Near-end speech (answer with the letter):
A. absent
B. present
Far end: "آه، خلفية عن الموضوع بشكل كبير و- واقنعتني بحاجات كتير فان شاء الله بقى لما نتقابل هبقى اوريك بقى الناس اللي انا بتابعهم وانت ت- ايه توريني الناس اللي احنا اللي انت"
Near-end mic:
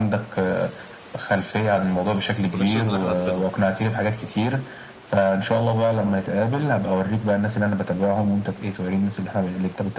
B